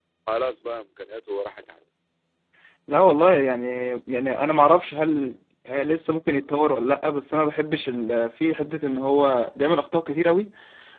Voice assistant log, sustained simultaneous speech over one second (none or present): none